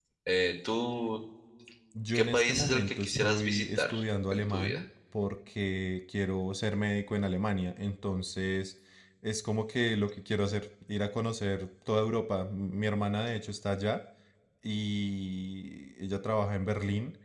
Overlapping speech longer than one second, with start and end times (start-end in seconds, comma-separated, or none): 2.1-3.9